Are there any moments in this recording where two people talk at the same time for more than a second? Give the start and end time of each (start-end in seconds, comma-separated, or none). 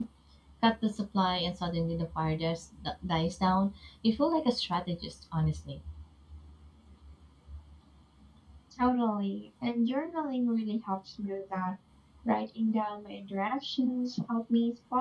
none